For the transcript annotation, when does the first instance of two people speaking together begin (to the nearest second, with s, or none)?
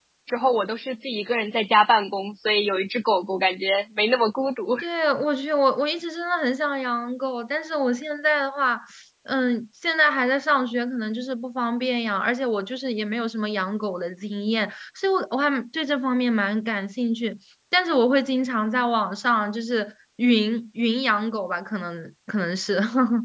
none